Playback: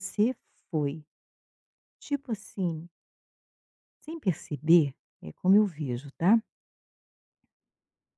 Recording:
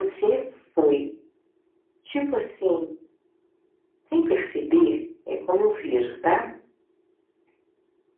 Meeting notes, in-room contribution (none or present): none